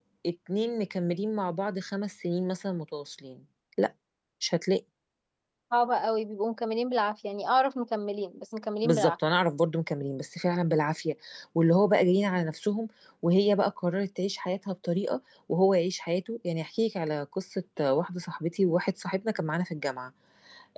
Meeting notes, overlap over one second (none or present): none